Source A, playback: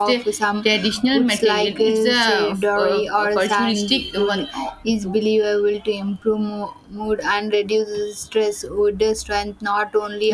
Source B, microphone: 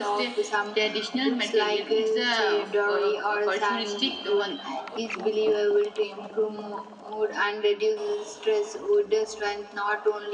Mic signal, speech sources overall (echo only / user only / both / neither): echo only